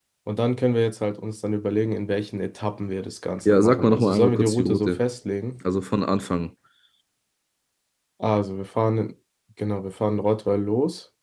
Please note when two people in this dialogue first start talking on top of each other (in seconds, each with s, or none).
3.5 s